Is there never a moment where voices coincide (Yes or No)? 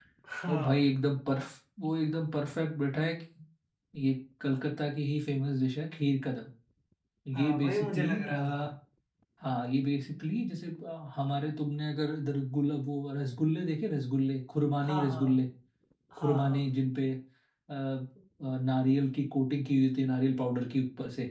No